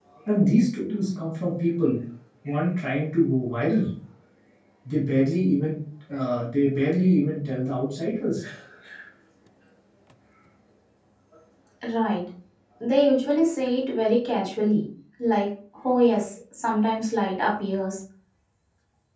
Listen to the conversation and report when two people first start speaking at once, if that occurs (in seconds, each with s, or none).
none